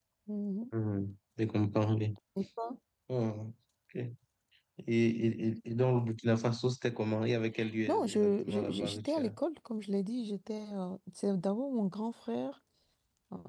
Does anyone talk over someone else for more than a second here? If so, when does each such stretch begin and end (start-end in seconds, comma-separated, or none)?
7.9-9.3